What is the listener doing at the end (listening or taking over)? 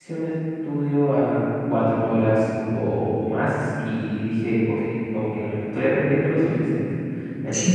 listening